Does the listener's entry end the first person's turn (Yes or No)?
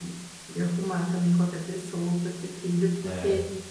Yes